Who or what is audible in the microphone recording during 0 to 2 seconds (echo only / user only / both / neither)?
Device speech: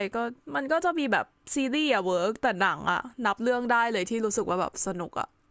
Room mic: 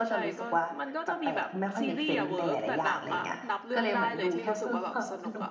both